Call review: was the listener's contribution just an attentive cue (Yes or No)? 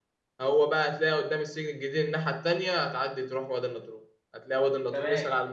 Yes